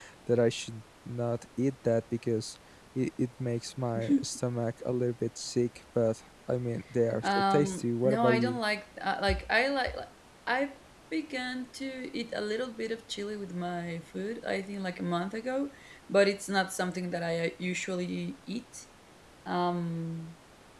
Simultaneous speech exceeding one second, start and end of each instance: 7.2-8.6

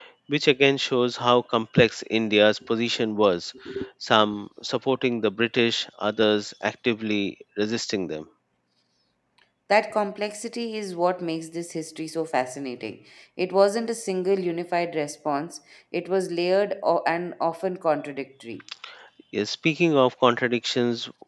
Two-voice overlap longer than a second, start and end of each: none

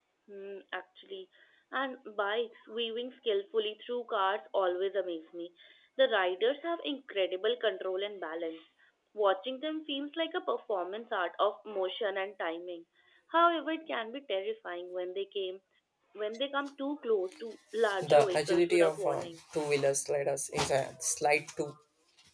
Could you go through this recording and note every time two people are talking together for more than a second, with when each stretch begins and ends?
18.0-19.4

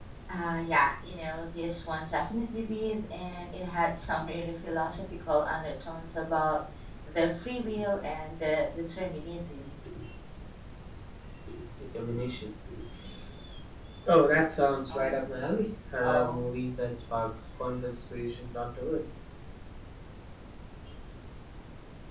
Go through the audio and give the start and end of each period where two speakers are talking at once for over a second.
none

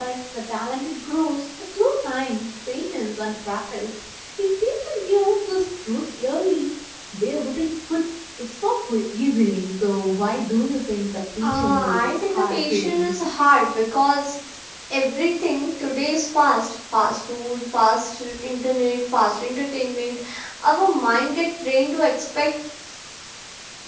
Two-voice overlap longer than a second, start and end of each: 11.4-13.1

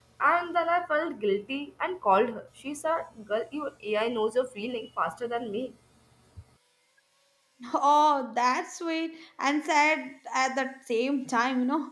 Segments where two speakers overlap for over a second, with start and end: none

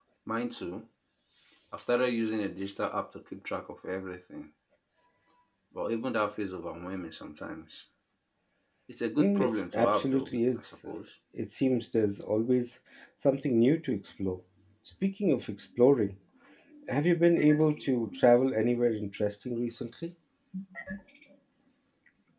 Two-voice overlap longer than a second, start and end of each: 9.2-11.0

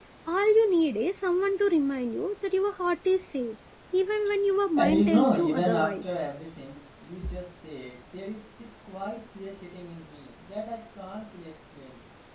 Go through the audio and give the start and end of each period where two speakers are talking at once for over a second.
4.8-6.0

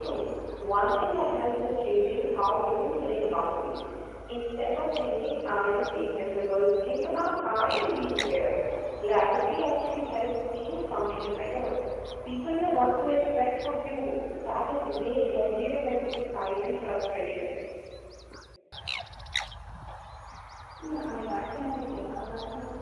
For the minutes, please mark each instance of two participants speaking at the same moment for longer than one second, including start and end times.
none

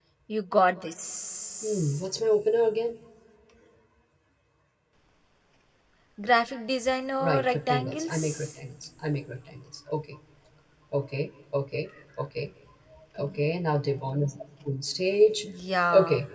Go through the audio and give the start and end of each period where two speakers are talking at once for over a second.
7.2-8.5

